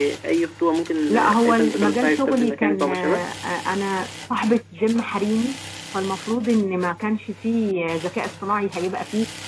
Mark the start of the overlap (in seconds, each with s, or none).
1.1 s